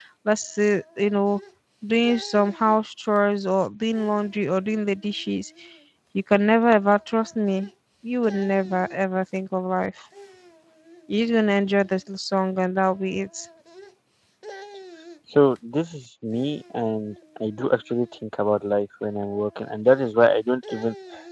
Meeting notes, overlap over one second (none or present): none